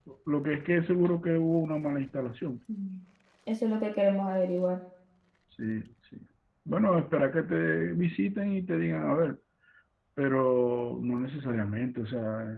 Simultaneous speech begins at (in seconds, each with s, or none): none